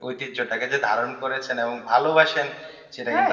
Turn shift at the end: No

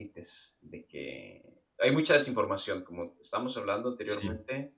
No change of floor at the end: Yes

